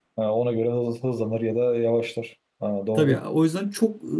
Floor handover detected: Yes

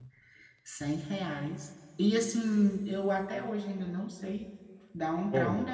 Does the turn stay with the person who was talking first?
Yes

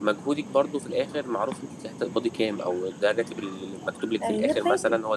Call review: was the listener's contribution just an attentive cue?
Yes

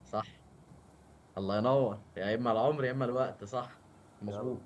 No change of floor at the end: Yes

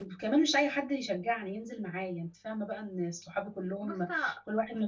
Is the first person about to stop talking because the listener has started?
No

